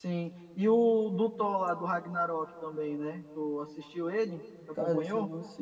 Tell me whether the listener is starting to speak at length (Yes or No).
Yes